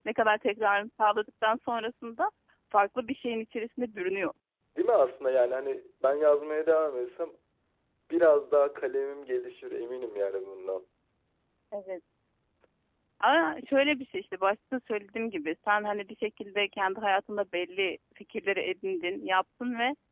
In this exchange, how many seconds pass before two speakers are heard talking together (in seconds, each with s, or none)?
none